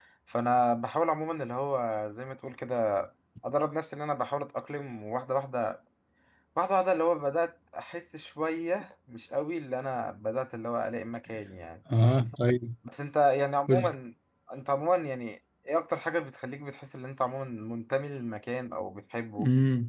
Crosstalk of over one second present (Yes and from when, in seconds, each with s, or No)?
No